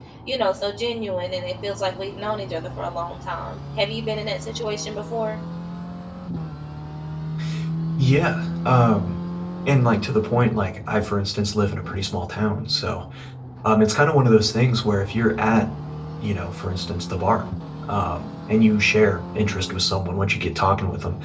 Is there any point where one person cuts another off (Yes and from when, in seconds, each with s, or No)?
No